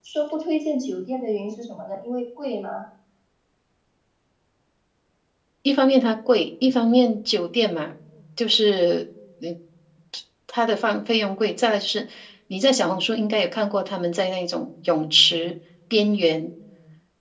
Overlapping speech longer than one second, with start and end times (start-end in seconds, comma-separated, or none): none